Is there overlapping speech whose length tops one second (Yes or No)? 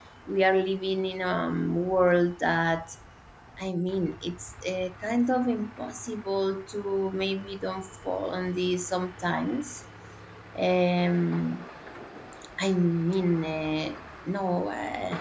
No